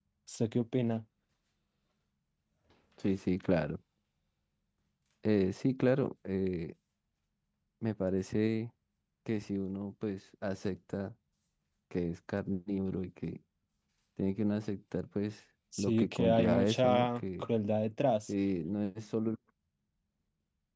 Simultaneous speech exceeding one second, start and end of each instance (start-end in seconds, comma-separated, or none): 15.8-17.5